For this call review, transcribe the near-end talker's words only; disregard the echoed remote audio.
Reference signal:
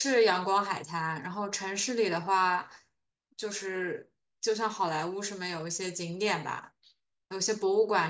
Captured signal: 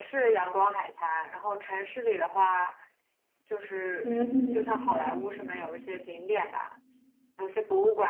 嗯

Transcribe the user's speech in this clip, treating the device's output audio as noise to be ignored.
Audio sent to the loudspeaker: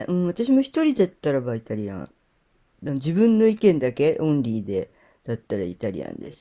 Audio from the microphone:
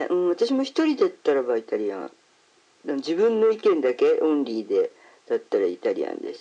none

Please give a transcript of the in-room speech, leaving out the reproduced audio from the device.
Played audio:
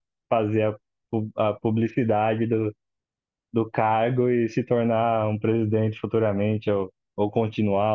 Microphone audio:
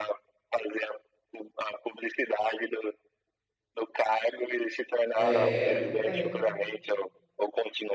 É, não tem.

